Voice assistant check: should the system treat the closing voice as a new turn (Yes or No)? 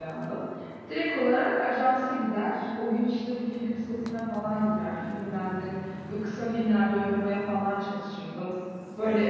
No